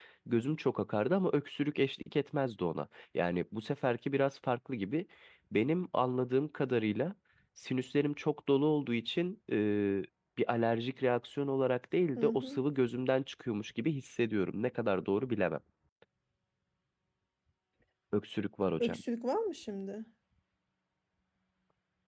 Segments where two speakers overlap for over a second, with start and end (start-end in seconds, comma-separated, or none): none